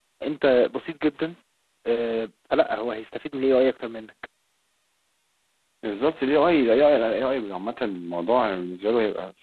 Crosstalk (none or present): none